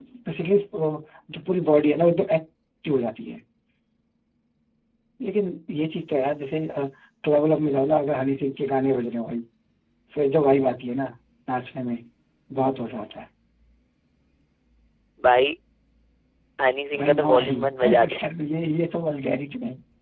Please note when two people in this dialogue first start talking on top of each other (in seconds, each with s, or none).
17.0 s